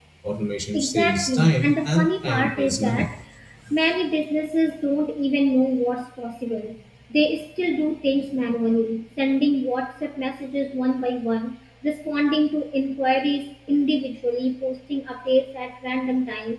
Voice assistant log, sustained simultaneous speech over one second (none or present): present